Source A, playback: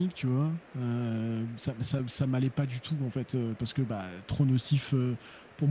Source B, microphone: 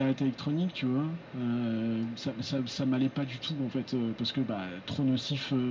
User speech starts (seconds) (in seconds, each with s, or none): none